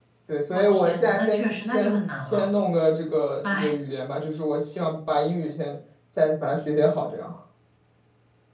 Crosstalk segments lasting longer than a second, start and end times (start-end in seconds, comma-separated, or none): 0.5-2.5